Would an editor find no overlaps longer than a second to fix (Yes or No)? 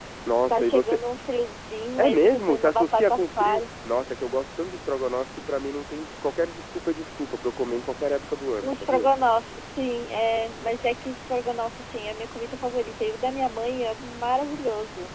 No